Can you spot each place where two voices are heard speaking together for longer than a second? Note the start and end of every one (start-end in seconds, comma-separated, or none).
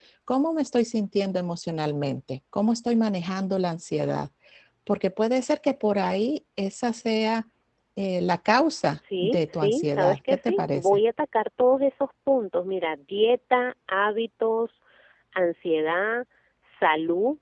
9.2-11.0